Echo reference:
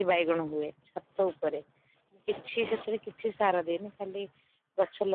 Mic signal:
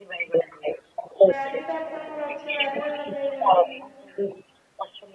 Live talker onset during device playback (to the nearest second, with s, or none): 1 s